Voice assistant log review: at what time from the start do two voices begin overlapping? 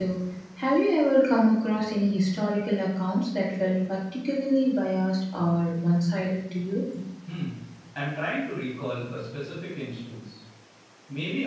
none

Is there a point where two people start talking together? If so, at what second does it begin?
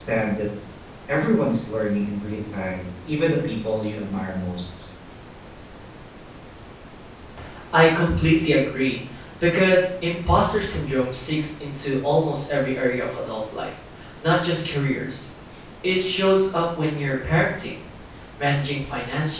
none

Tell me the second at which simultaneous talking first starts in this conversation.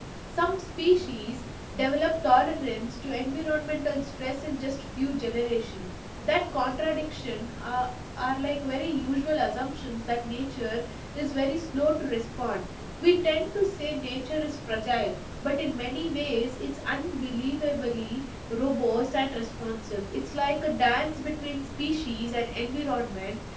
none

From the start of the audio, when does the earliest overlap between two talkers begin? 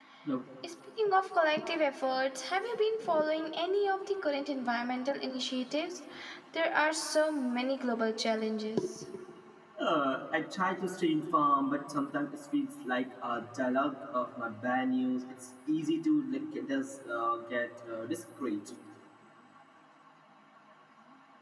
none

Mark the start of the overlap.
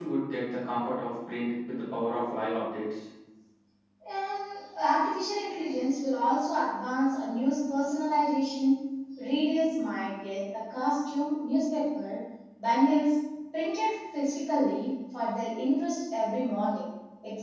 none

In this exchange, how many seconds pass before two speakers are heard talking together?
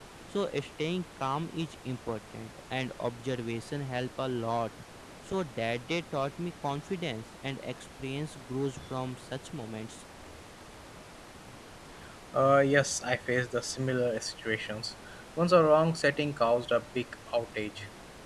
none

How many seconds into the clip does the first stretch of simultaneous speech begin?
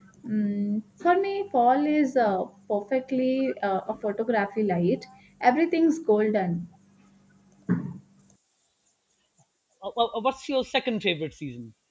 none

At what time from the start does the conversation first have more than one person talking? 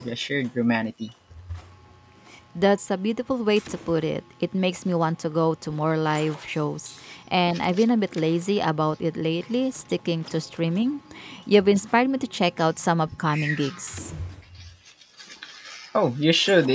none

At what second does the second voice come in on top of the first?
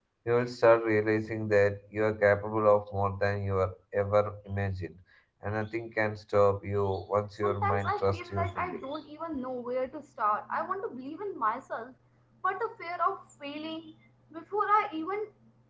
7.4 s

